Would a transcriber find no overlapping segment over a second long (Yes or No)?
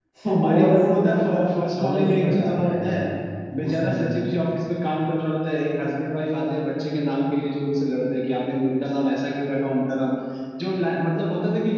No